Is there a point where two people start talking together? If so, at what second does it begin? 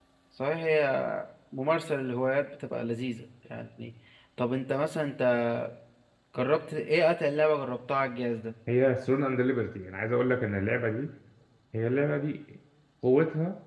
none

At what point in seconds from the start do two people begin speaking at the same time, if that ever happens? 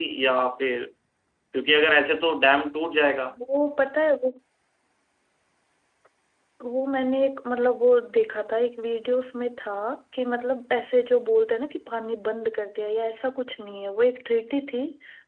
none

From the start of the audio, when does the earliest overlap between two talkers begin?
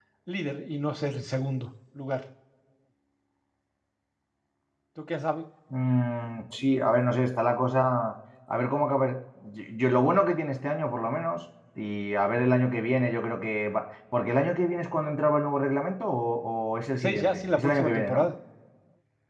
16.9 s

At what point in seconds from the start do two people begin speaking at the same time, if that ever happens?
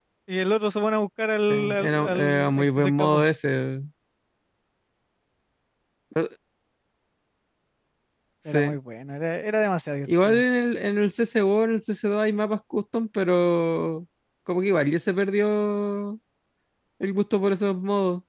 1.5 s

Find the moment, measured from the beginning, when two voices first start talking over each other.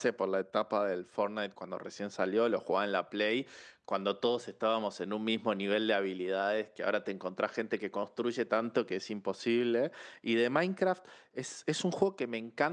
none

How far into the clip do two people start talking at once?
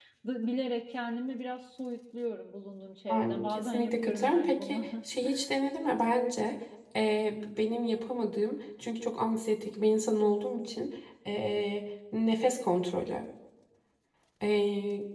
3.1 s

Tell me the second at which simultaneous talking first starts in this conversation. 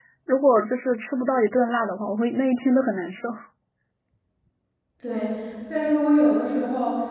none

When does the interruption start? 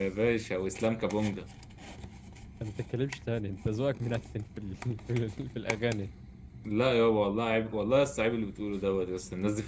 none

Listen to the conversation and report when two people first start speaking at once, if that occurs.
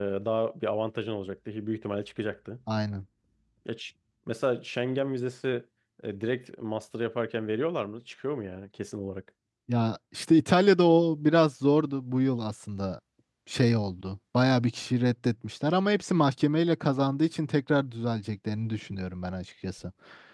none

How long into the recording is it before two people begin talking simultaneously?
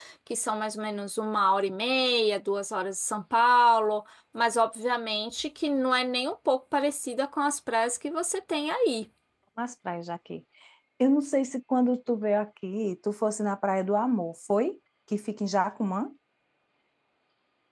none

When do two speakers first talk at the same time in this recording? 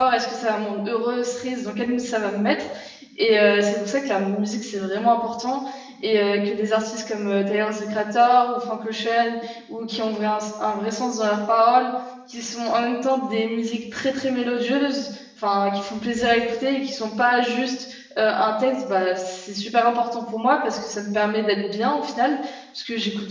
none

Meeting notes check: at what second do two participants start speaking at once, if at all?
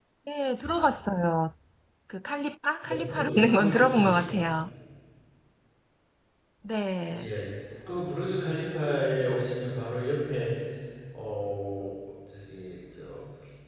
2.9 s

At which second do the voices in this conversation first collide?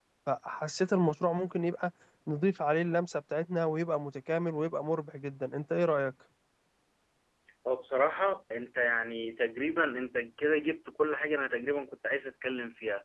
none

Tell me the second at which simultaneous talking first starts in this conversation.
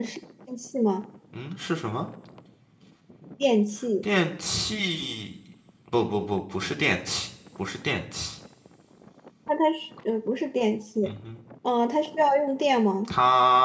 none

